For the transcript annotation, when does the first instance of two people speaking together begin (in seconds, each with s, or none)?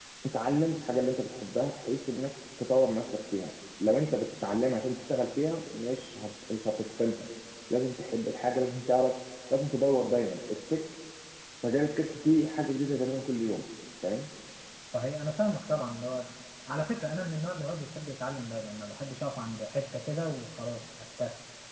none